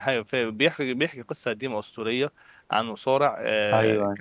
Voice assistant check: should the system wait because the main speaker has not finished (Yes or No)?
Yes